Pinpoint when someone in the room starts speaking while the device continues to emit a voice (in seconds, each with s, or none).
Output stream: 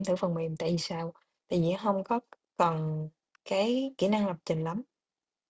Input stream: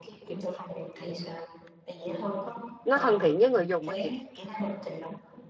2.8 s